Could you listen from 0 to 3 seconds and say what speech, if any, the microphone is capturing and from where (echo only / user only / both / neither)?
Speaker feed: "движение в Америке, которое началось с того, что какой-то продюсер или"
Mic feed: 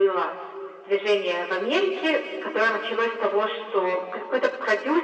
echo only